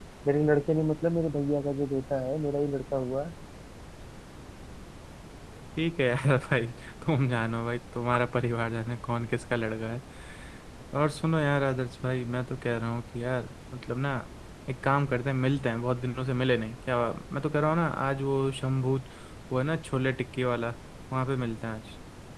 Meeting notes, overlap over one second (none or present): none